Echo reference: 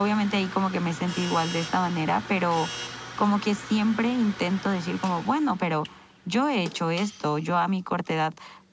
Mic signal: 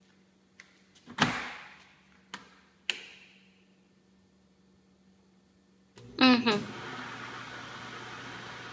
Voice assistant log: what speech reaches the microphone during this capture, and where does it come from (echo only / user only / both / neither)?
user only